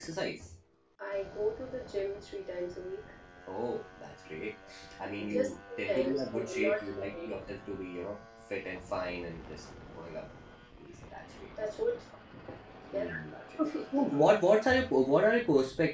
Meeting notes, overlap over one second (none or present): present